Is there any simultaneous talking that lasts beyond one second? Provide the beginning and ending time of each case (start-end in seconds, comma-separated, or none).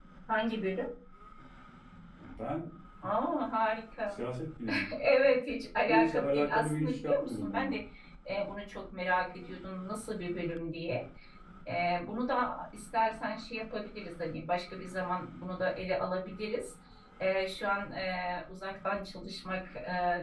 5.8-7.8